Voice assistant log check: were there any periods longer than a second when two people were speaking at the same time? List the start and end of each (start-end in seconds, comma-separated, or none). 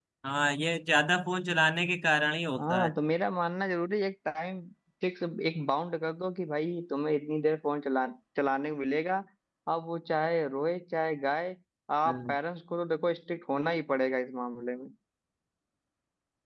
none